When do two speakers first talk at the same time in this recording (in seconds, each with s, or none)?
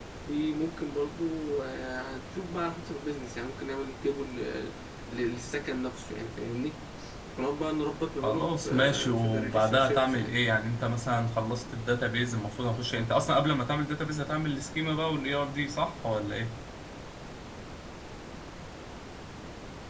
8.2 s